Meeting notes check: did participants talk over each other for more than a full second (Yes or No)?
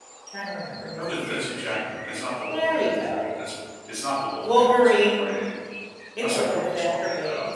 Yes